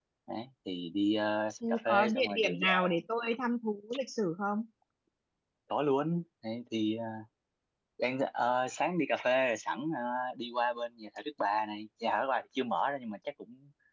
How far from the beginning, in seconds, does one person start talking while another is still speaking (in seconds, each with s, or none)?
1.6 s